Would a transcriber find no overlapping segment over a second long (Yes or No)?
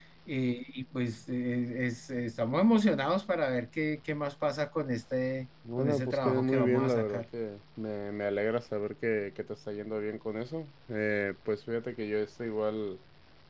No